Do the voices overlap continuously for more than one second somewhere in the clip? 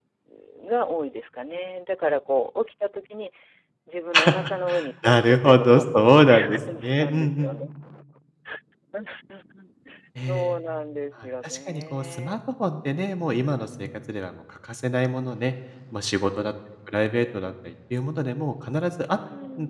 Yes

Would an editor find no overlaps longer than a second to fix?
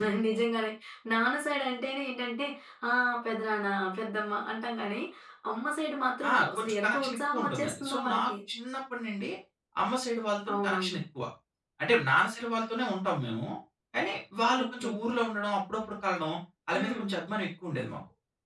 No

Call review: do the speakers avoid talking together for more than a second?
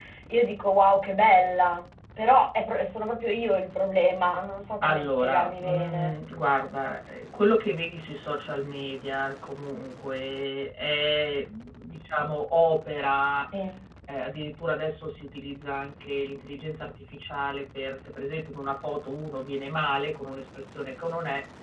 No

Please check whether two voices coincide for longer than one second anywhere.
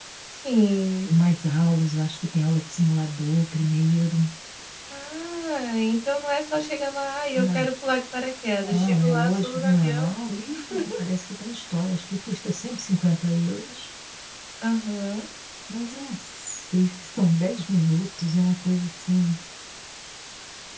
Yes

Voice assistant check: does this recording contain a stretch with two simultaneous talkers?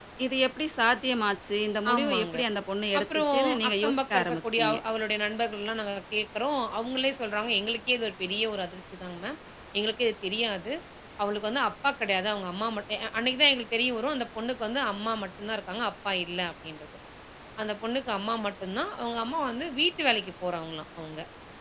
Yes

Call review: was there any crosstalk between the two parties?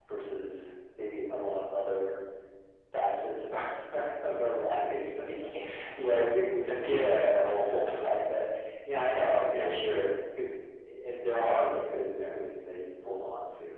Yes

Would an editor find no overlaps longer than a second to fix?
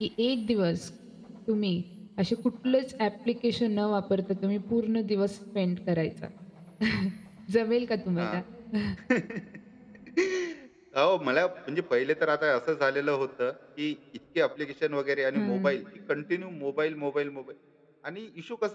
Yes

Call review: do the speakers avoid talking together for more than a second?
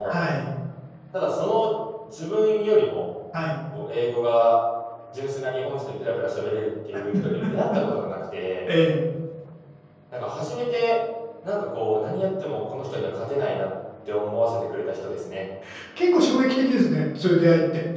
Yes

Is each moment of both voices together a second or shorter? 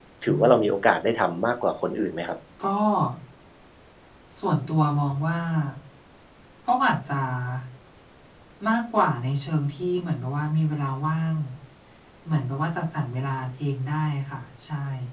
Yes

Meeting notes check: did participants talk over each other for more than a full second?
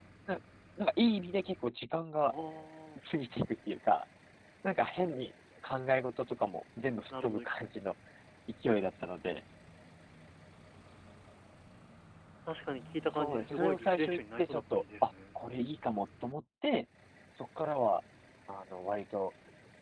Yes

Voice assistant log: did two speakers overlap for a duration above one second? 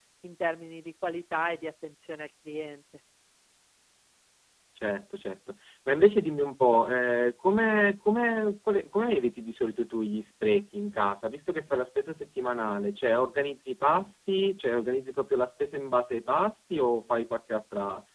No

